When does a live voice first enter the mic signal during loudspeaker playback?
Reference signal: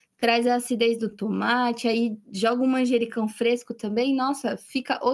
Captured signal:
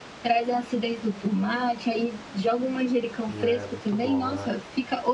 3.3 s

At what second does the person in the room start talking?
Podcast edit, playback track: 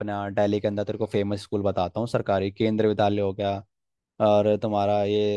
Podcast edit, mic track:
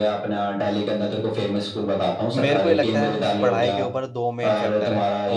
2.4 s

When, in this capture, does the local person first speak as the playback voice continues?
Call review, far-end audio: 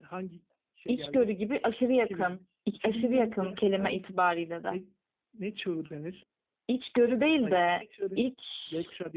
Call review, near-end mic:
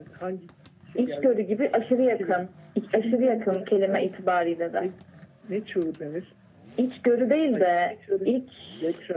none

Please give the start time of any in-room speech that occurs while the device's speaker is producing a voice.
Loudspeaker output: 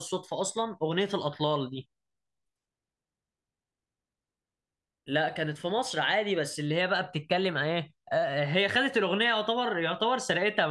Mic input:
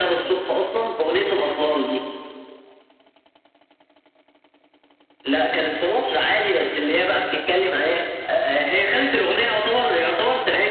none

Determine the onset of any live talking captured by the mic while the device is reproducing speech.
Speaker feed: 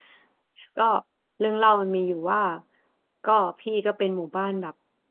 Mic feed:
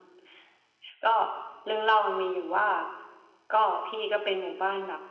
none

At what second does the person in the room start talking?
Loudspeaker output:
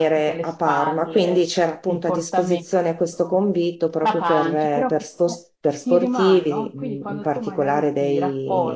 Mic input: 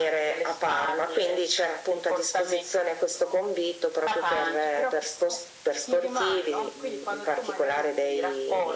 none

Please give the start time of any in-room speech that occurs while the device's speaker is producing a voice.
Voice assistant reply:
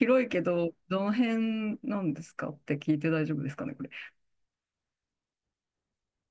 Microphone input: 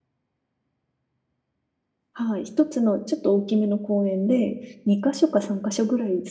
2.1 s

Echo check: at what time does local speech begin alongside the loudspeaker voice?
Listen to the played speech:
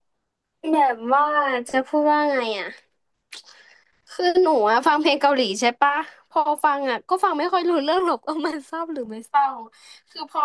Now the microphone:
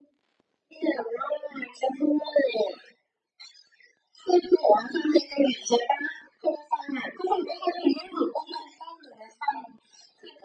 none

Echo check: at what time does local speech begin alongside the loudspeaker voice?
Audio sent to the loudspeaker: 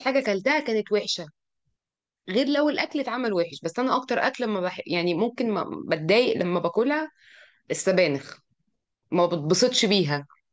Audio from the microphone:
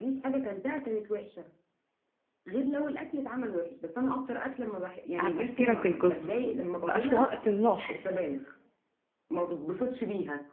5.2 s

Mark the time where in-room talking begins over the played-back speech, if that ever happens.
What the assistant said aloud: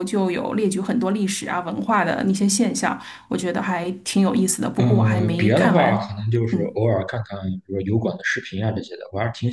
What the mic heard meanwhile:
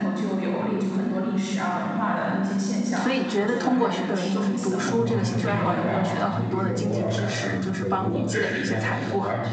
3.0 s

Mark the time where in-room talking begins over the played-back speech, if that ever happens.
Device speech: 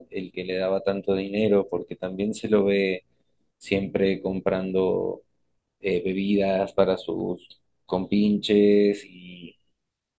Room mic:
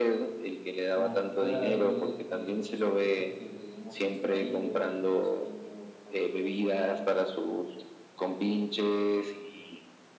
0.9 s

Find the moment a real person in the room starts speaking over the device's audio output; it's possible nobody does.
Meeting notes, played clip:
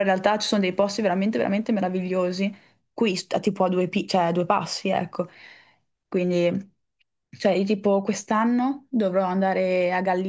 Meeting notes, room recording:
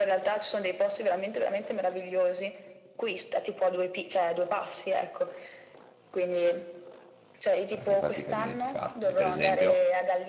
7.7 s

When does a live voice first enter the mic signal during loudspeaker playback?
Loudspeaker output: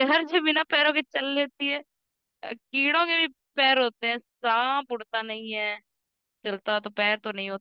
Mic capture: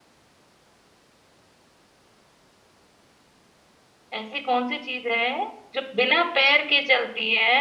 4.1 s

